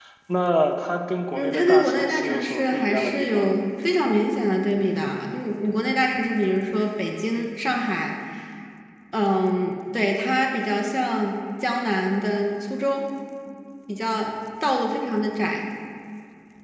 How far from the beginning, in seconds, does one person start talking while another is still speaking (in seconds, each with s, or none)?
1.3 s